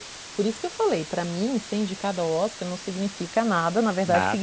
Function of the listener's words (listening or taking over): listening